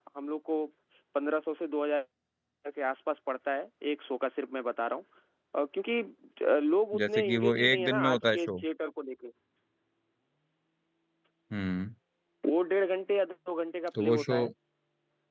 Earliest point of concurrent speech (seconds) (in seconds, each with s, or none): 7.0 s